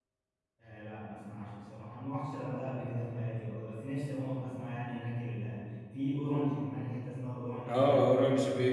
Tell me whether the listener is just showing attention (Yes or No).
No